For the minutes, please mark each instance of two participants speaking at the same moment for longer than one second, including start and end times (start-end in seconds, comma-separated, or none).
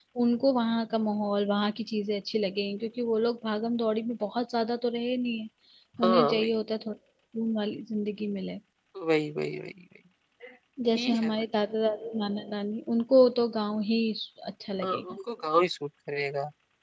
none